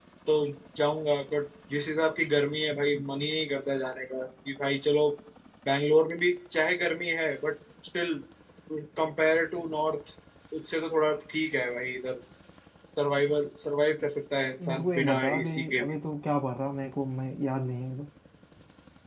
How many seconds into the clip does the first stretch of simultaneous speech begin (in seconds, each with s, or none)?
14.6 s